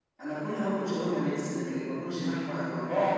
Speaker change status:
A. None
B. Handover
B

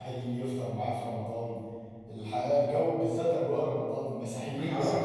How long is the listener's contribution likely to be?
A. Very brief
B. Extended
B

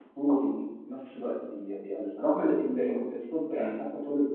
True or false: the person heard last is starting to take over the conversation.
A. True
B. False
B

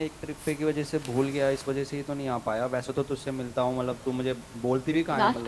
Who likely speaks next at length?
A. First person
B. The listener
B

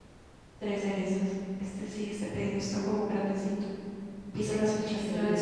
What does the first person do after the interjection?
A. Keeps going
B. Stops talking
B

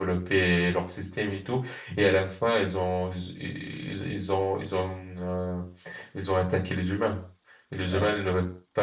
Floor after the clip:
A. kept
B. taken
A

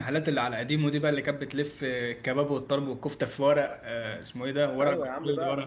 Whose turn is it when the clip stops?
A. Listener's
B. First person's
A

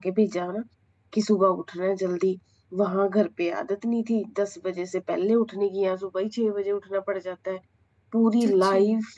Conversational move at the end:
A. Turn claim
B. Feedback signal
B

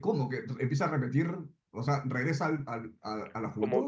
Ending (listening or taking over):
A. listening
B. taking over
B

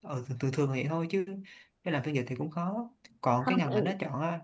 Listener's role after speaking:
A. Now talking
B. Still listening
B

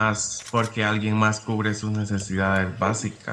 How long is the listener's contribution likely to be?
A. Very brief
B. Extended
A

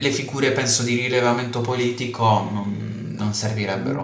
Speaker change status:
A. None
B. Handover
B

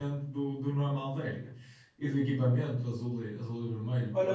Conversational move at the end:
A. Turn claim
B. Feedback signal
A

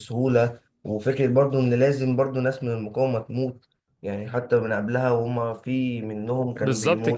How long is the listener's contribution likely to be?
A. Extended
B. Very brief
A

